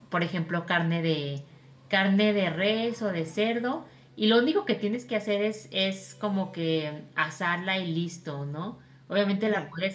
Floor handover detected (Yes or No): No